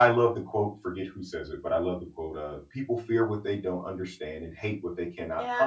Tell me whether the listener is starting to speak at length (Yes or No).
Yes